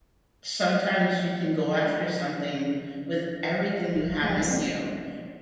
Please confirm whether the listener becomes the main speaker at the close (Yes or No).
No